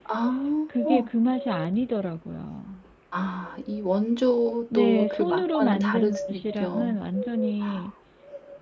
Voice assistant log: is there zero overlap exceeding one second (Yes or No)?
No